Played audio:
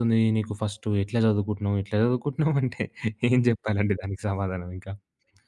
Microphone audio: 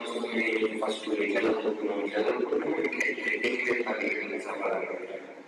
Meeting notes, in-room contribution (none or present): none